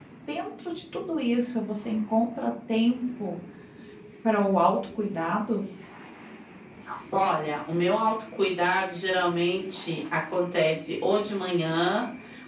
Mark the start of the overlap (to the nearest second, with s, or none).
none